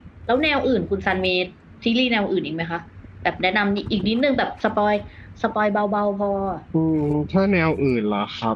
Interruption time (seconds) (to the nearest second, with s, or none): none